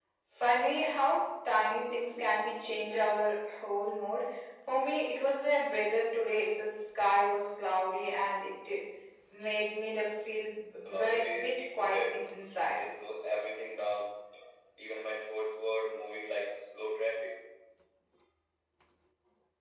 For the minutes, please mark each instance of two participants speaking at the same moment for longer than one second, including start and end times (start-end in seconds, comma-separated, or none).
10.8-12.1